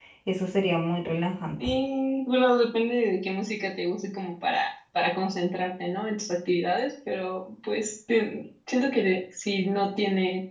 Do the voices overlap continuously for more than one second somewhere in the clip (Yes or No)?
No